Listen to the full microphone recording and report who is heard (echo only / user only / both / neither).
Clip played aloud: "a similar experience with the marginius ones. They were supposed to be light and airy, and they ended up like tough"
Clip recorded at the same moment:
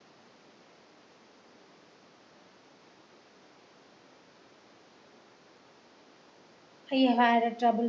user only